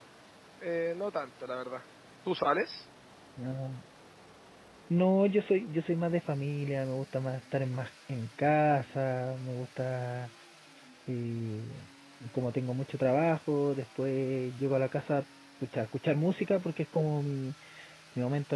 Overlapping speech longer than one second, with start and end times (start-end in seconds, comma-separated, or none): none